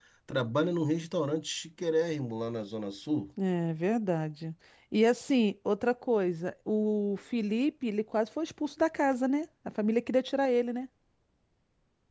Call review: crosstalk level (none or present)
none